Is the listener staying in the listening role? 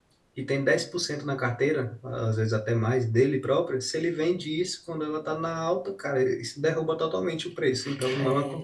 No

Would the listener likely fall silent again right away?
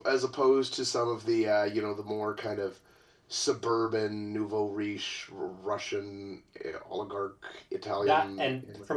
No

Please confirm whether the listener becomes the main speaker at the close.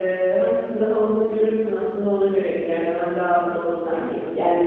No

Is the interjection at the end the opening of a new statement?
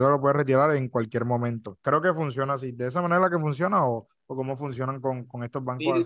Yes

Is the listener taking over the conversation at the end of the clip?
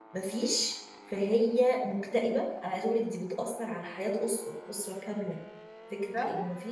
No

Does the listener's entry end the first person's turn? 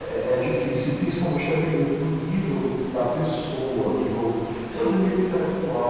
No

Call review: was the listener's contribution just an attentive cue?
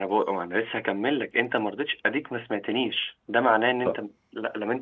Yes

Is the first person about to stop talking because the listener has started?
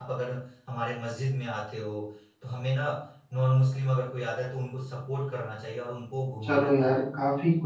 Yes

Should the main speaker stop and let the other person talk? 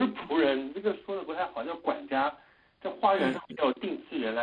No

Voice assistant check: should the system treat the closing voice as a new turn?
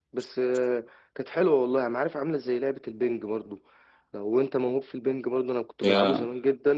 No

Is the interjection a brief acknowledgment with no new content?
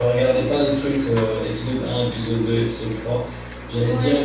Yes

